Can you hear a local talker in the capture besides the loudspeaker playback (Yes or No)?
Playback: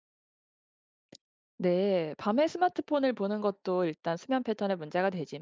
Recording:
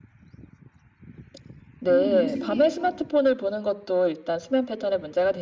Yes